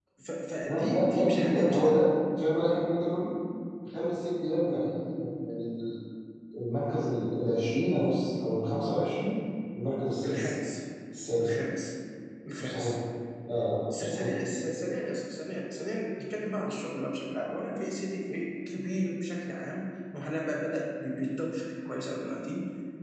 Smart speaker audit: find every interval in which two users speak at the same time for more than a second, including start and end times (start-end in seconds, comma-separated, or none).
0.6-2.1